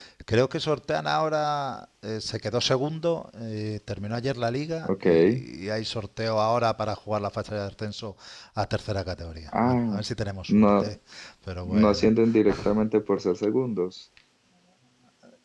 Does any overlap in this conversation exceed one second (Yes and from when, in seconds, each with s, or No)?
No